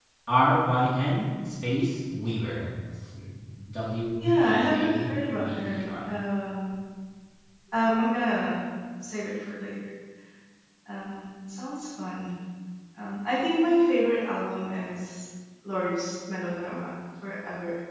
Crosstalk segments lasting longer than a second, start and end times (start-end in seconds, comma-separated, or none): 4.2-6.1